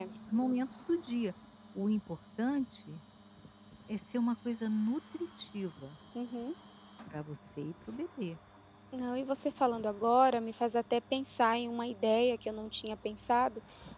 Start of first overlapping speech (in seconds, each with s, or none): none